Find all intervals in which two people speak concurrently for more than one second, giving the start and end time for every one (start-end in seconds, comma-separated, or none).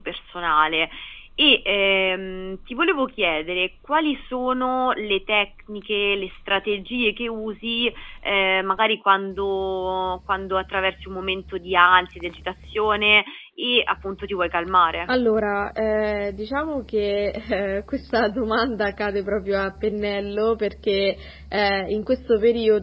none